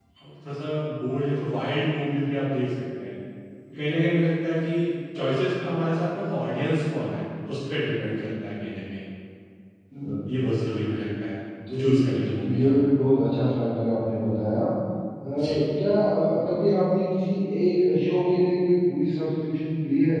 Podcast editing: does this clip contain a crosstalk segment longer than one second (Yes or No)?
No